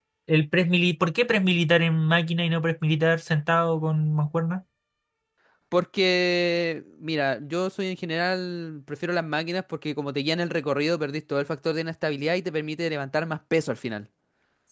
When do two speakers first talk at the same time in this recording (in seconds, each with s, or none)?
none